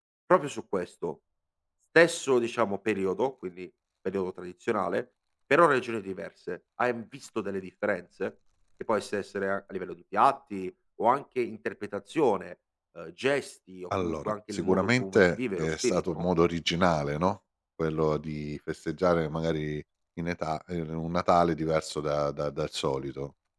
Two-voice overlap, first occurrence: 13.9 s

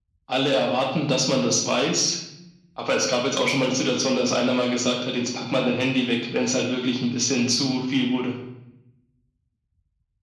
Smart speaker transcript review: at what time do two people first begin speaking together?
none

